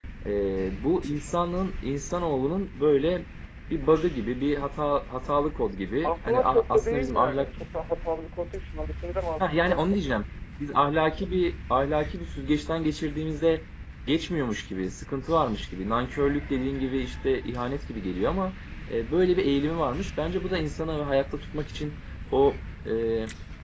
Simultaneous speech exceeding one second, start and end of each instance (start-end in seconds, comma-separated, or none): 6.0-7.5